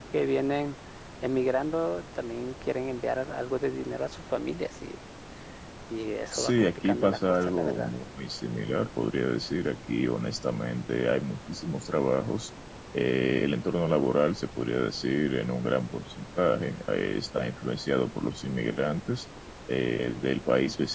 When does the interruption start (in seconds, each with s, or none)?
6.3 s